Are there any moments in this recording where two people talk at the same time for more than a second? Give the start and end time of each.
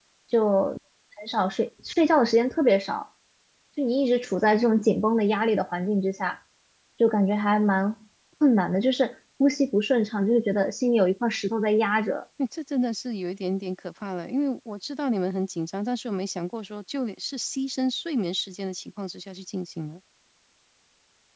none

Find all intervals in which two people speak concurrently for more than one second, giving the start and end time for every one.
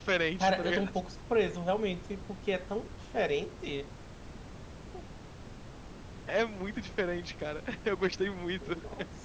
none

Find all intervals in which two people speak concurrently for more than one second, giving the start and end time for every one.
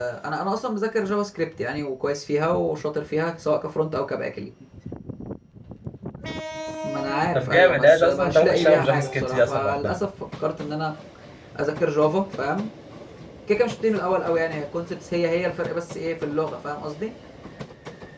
7.3-10.0

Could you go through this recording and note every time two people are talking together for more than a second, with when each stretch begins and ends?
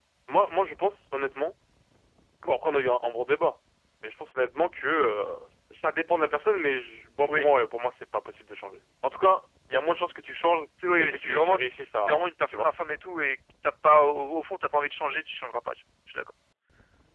11.0-12.7

